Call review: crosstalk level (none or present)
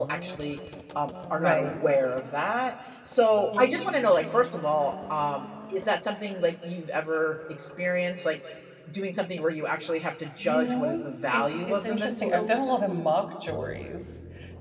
present